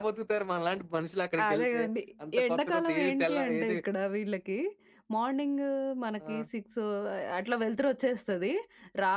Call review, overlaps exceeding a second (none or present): present